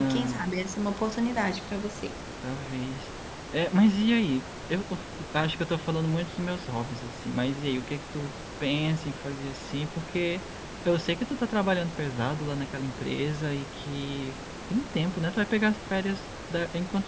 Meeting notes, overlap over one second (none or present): none